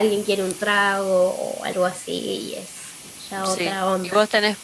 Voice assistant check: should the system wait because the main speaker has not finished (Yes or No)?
No